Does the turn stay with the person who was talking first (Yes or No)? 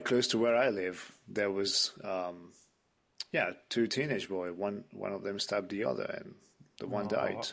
No